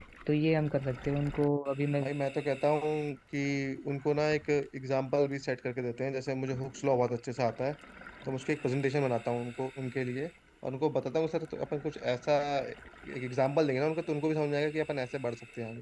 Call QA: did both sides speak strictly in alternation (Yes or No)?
Yes